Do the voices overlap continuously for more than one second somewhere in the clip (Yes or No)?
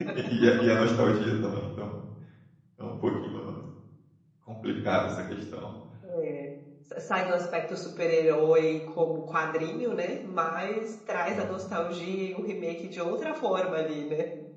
No